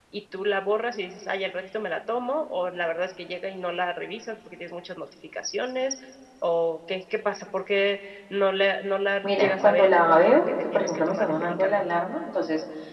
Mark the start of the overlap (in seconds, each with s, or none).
9.2 s